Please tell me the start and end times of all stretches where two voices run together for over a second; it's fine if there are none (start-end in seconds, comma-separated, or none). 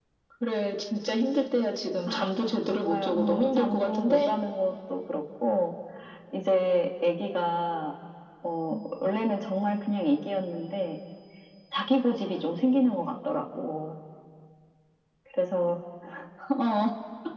2.7-4.3